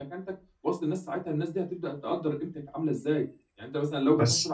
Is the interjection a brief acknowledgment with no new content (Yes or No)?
Yes